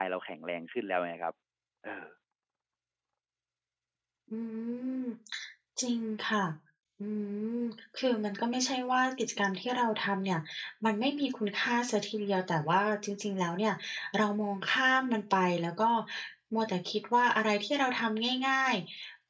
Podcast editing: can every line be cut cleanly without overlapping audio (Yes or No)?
Yes